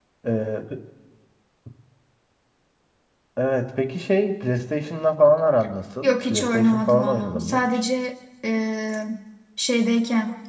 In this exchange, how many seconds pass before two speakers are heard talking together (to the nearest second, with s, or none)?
6 s